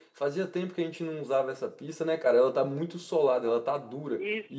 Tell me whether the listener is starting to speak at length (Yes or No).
Yes